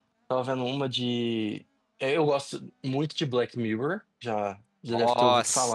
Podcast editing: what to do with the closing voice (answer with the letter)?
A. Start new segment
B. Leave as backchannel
A